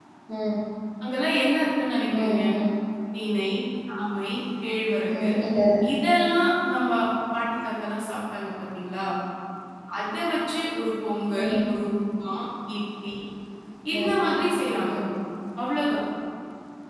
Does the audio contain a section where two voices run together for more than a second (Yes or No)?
No